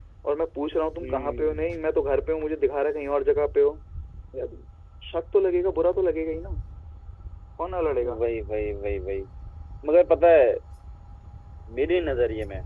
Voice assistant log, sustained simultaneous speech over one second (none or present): none